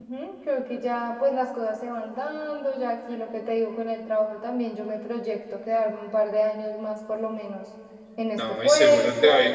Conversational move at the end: taking over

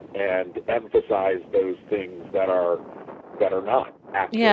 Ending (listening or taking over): taking over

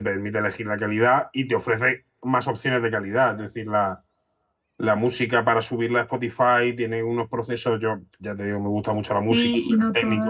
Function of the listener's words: taking over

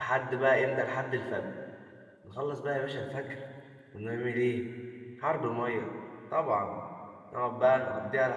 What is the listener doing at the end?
listening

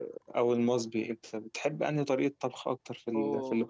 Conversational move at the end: listening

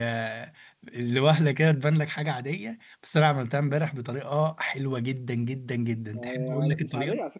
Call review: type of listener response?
taking over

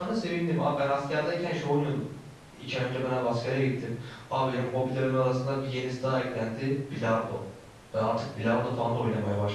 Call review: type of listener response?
listening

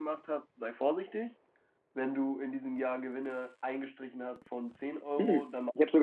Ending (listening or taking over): taking over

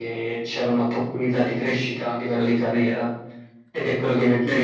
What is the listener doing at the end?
taking over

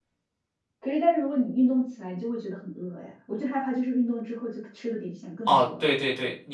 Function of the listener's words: taking over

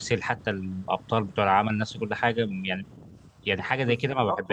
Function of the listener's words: taking over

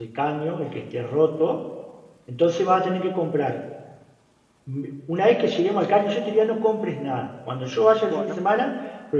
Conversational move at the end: listening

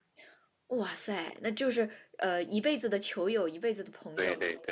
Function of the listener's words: taking over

